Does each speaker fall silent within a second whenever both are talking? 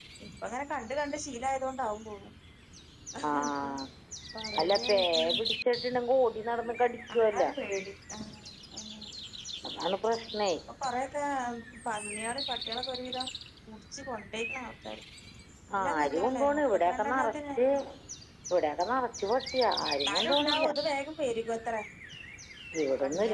No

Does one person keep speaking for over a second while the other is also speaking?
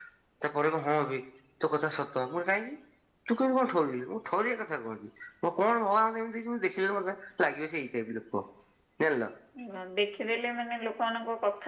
No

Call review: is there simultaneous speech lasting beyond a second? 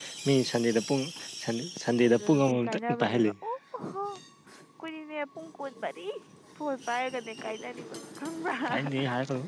Yes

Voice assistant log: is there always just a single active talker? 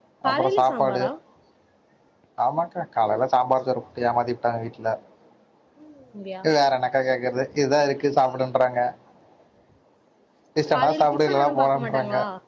No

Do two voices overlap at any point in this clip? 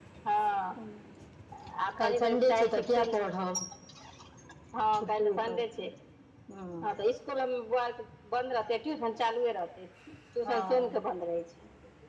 Yes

